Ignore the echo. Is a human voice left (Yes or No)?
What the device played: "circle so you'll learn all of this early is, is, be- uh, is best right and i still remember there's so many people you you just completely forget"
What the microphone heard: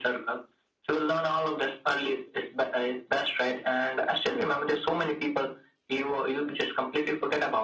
No